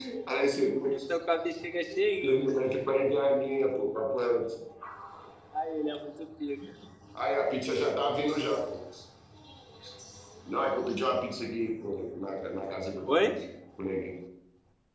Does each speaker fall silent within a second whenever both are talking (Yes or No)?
Yes